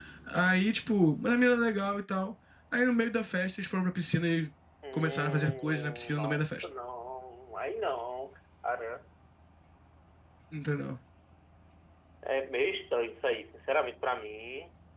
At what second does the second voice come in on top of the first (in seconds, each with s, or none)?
4.9 s